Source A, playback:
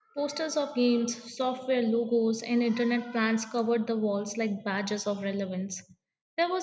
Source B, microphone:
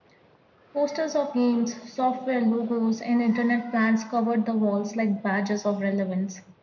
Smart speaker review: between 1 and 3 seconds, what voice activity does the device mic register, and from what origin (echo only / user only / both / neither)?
echo only